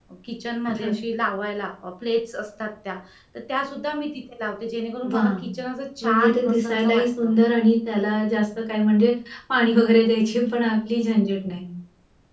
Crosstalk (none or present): present